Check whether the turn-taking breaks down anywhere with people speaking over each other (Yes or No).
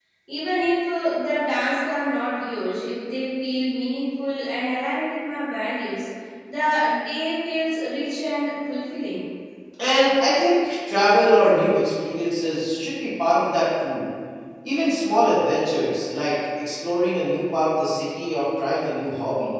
No